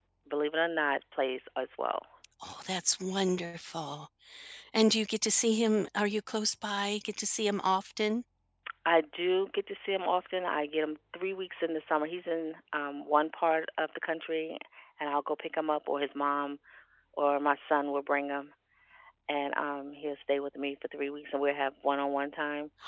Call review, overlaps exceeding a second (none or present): none